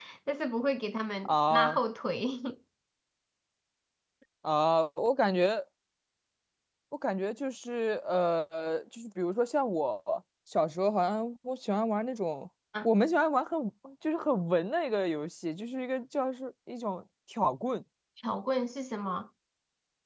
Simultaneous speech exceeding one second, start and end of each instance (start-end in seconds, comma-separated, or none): none